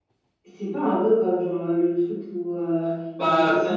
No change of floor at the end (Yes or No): Yes